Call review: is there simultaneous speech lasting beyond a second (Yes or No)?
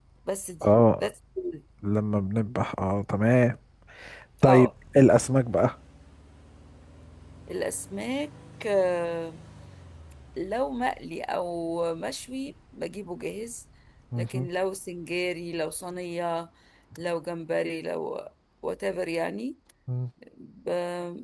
No